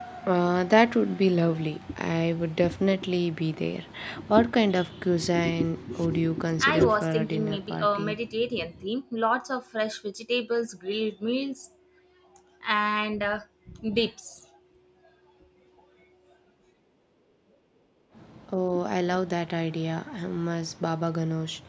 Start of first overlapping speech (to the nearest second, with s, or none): 7 s